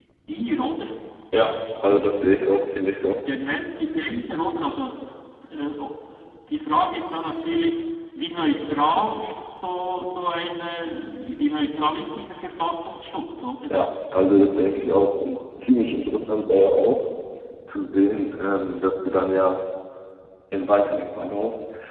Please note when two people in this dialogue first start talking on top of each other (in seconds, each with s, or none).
none